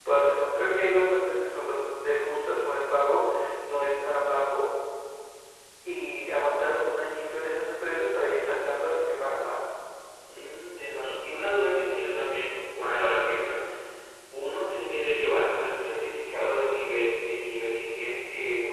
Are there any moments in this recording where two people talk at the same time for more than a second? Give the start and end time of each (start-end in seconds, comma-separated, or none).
none